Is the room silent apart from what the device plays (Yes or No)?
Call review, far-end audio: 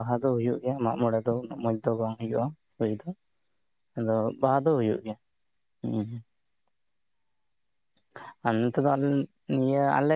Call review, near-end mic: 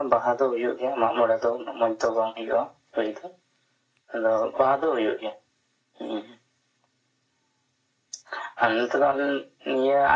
Yes